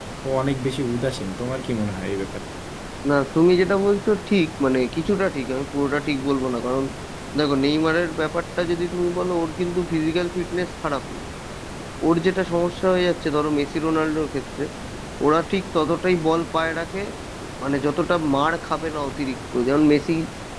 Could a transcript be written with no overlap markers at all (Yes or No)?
Yes